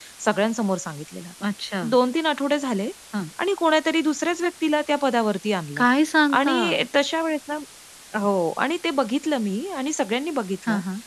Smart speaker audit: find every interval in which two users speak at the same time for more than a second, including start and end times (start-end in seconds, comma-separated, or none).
none